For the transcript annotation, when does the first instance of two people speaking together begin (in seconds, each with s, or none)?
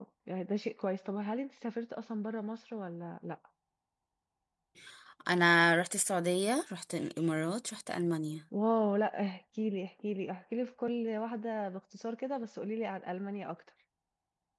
none